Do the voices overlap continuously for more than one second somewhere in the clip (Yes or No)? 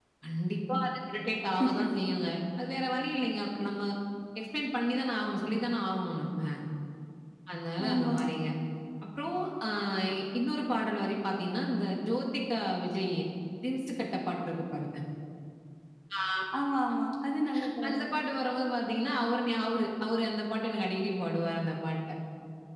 No